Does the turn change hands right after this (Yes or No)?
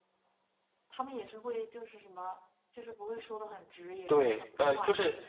Yes